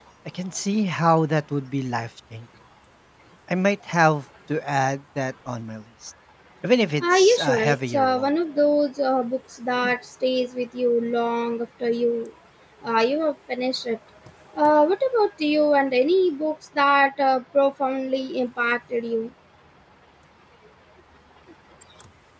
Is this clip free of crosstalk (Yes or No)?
No